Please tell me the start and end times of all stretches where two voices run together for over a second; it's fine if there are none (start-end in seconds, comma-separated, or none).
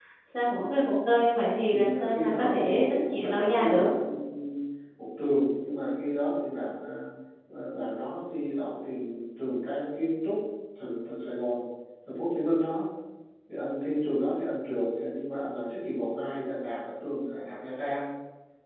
1.7-3.9